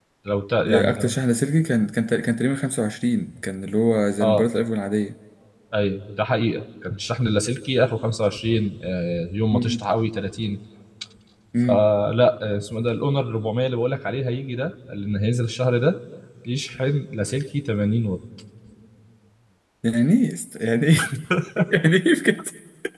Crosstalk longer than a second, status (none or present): none